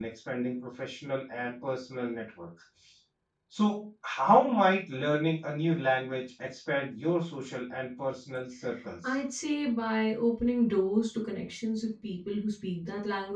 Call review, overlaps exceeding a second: none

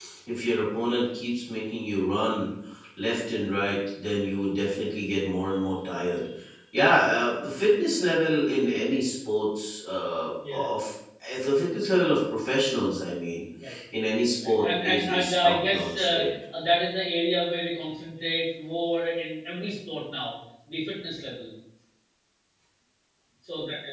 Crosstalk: present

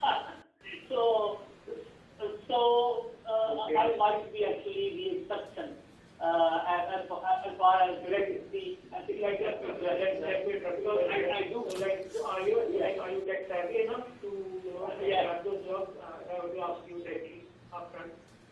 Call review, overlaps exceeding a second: present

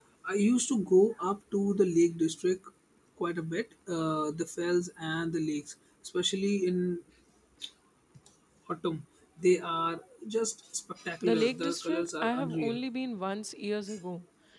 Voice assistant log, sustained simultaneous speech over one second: present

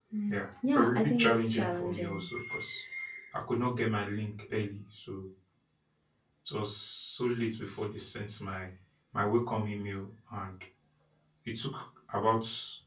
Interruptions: present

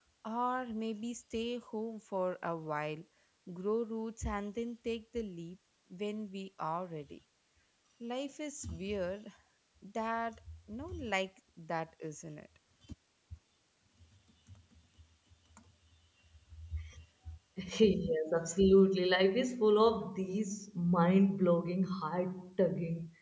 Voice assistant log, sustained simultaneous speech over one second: none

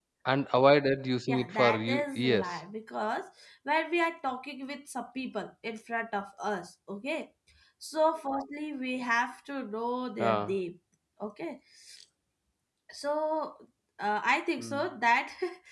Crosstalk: present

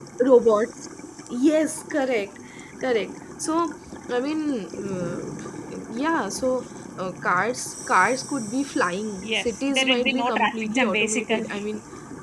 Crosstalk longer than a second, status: present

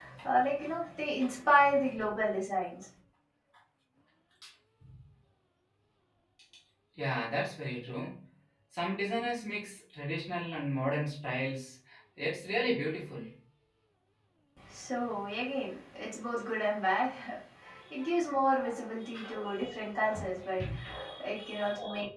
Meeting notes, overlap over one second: none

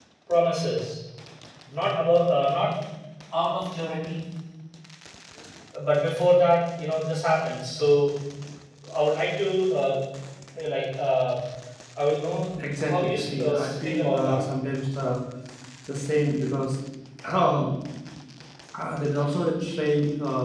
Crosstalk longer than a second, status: present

